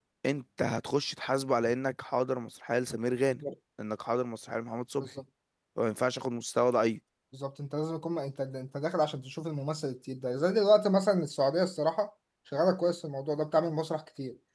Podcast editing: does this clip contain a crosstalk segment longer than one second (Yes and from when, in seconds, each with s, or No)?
No